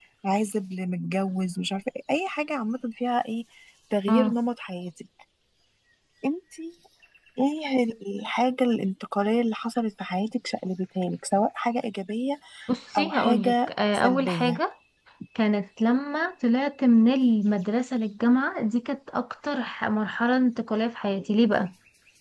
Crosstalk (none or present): present